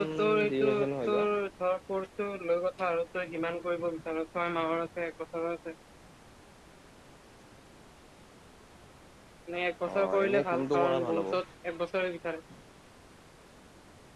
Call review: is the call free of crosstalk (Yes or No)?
No